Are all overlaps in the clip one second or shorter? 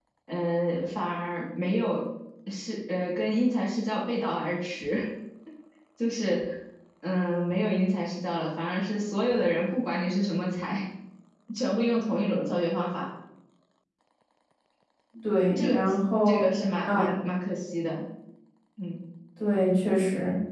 Yes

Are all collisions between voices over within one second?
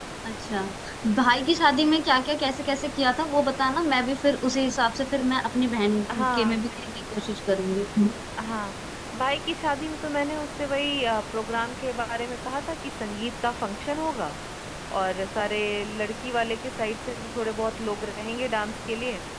Yes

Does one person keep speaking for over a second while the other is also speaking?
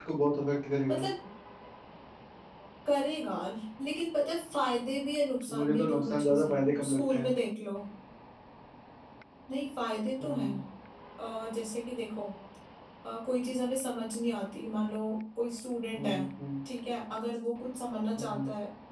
Yes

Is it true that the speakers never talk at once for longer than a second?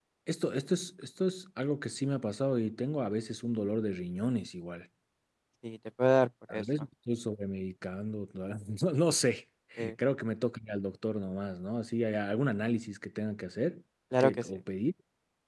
Yes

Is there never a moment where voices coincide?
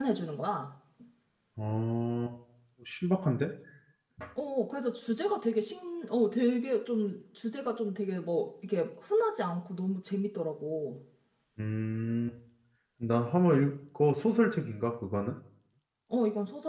Yes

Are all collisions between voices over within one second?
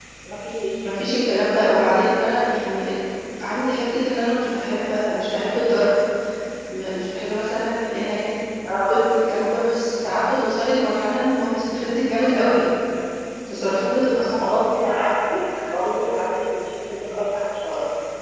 Yes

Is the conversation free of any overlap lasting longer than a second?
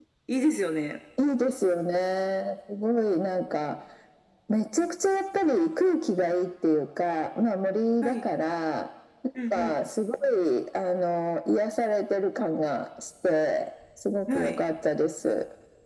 Yes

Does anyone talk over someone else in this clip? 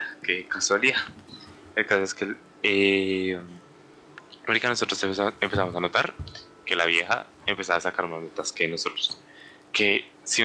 No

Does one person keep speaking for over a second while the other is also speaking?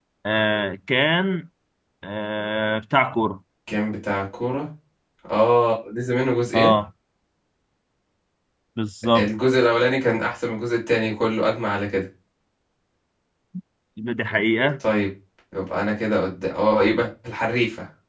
No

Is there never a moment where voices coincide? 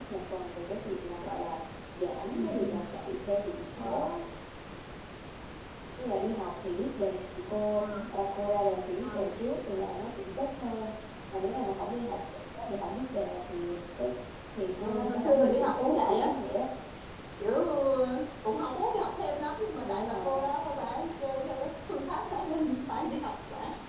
No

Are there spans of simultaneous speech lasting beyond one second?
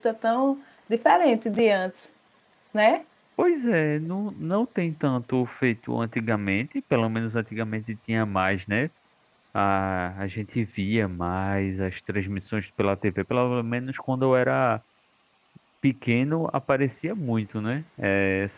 No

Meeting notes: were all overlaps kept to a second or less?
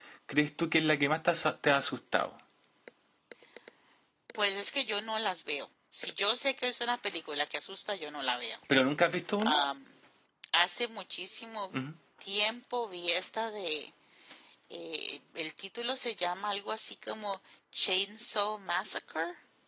Yes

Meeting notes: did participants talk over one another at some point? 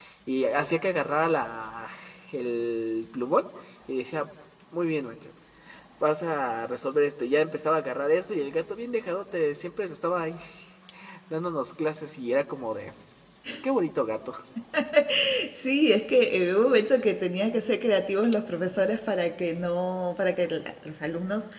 No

